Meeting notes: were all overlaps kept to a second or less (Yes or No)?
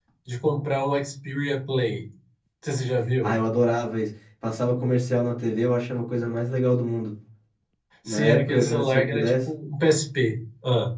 No